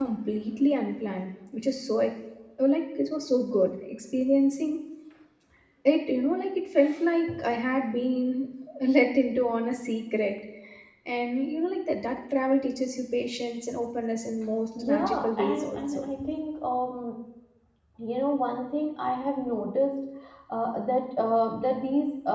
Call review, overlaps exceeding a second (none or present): present